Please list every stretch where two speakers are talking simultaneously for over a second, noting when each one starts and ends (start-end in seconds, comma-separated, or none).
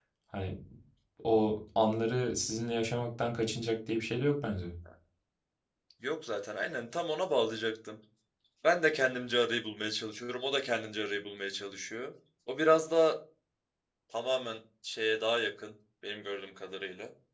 none